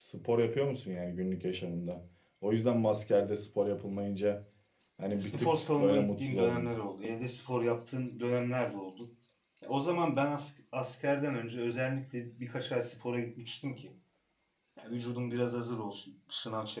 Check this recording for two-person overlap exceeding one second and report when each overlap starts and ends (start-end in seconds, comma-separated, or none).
5.2-6.7